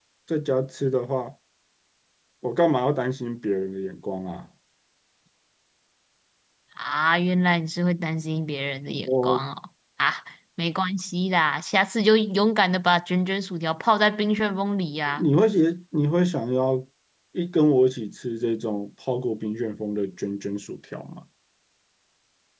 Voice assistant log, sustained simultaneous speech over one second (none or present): none